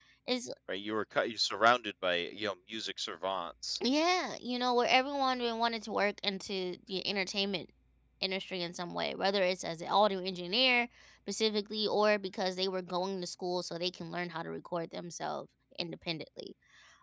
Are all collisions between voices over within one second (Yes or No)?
Yes